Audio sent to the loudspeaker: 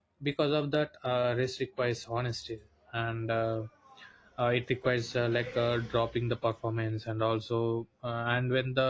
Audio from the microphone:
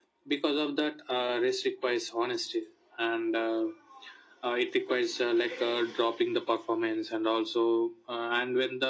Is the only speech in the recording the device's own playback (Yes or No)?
Yes